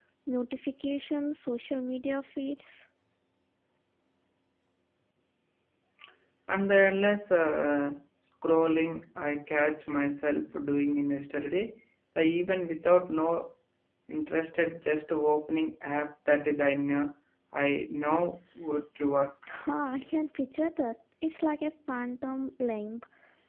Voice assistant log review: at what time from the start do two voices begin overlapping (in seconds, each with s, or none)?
none